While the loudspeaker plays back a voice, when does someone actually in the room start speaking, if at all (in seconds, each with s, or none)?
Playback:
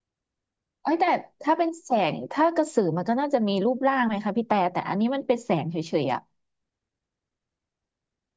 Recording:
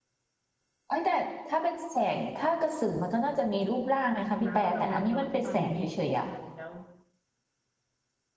4.4 s